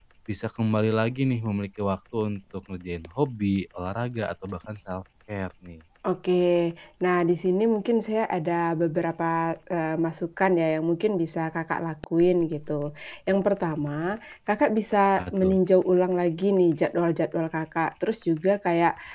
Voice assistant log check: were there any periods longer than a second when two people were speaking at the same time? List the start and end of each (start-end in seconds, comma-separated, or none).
none